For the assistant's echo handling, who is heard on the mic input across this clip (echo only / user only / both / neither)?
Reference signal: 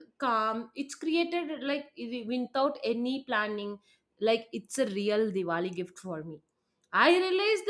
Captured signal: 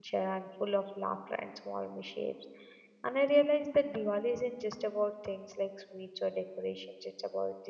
user only